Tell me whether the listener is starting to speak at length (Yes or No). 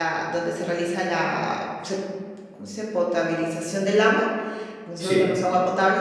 No